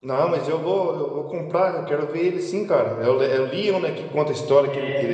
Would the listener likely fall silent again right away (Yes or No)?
Yes